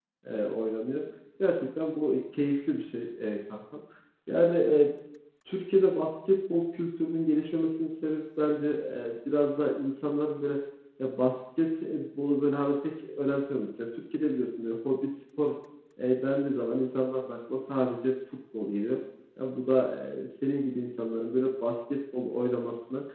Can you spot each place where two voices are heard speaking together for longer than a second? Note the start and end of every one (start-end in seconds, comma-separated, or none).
none